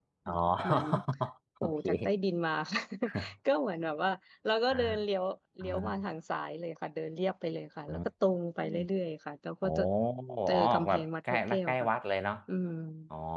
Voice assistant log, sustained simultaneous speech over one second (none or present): present